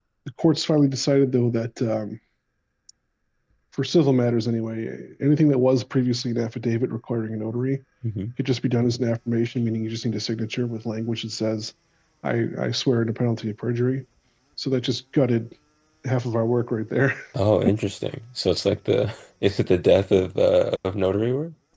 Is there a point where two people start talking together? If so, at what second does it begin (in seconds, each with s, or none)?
none